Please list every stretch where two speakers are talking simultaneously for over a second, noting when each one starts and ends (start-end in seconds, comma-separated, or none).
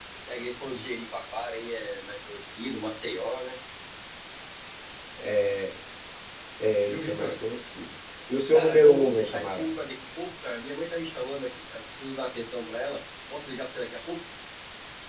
8.5-9.8